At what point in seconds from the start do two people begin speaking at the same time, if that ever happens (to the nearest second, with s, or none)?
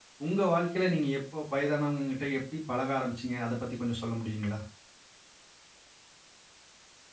none